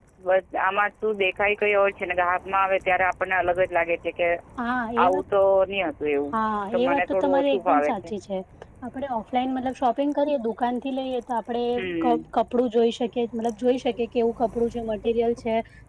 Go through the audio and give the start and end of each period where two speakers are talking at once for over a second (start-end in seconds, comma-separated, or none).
6.7-7.9